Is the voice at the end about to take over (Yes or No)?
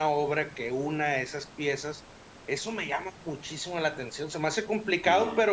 No